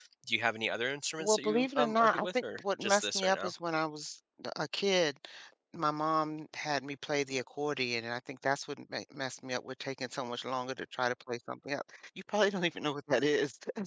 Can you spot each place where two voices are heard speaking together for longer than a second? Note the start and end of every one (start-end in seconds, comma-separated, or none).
1.2-3.5